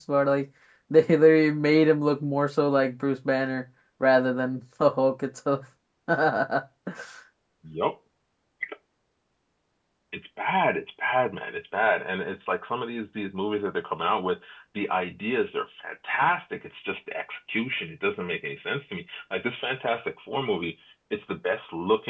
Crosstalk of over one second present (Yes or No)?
No